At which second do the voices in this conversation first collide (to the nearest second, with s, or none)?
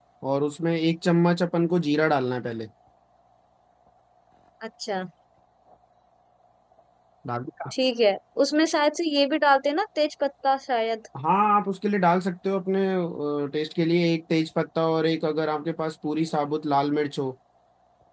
none